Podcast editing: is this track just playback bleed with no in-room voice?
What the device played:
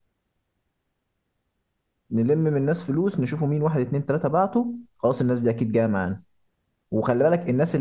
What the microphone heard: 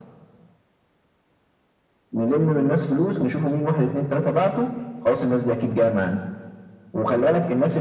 Yes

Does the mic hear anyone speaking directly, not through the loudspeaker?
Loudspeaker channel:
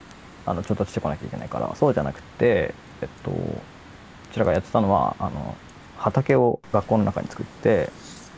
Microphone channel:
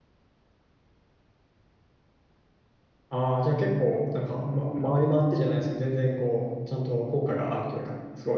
Yes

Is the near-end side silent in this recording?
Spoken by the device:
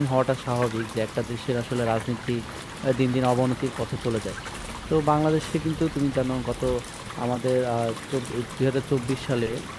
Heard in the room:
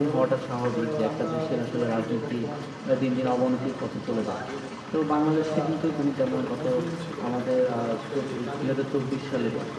No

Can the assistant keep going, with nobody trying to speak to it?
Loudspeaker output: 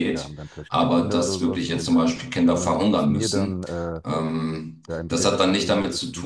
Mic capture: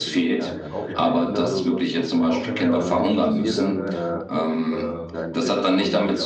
No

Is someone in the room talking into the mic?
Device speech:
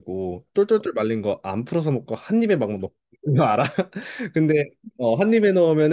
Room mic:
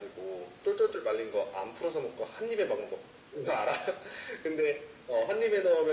No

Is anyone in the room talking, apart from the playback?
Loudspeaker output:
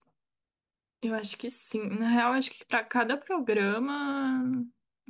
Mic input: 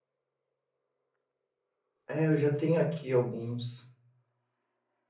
Yes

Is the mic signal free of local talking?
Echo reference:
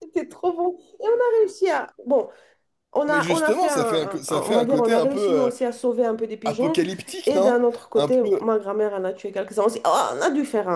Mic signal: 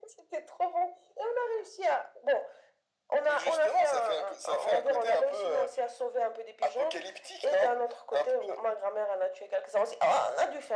Yes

